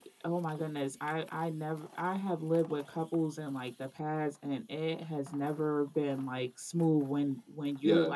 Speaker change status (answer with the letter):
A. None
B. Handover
A